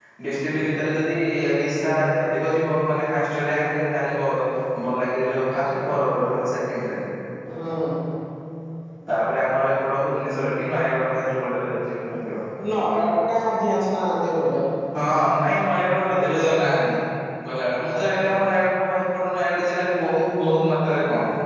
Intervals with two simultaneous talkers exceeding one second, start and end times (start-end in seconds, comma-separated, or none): none